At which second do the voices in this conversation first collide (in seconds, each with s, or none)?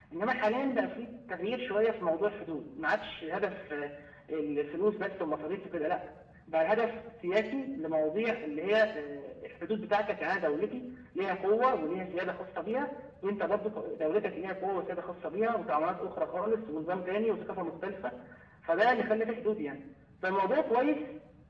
none